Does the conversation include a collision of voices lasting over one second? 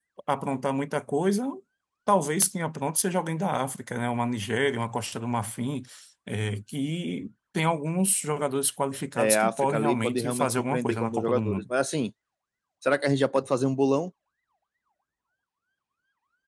Yes, from 9.2 s

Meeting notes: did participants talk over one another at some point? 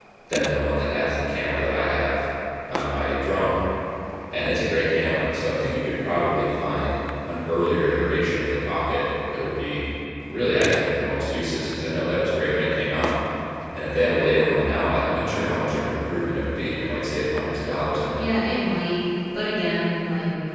No

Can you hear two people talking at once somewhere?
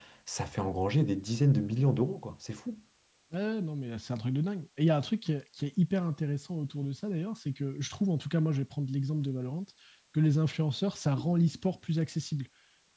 No

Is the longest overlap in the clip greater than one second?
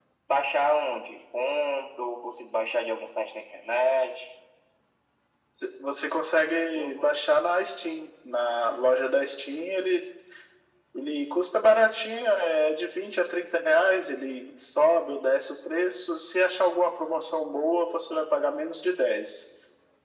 No

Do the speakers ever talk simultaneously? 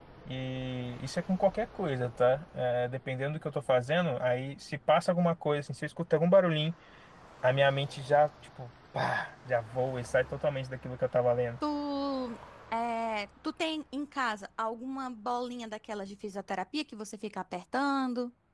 No

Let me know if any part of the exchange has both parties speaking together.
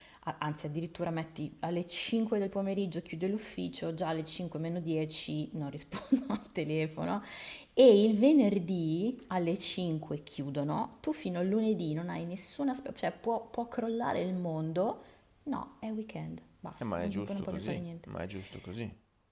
Yes, from 16.8 s

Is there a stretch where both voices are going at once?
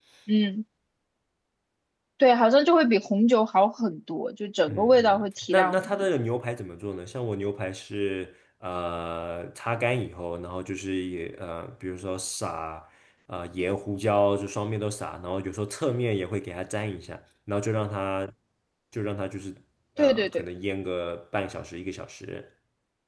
Yes, from 4.7 s

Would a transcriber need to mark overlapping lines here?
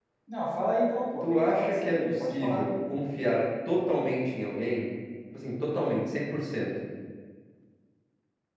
Yes, from 1.2 s

